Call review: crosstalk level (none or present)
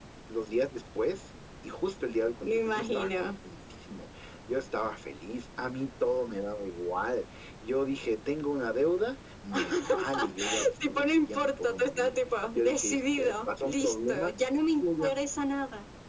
present